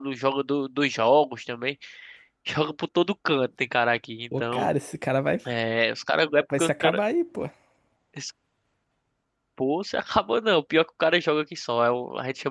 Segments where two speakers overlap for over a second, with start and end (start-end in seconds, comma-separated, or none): none